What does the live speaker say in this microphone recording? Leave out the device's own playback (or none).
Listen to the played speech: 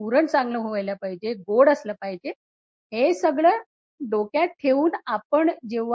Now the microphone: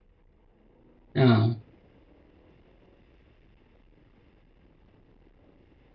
हां.